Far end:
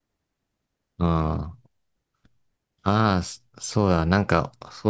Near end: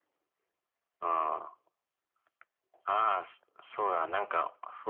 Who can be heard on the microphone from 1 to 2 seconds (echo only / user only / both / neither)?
echo only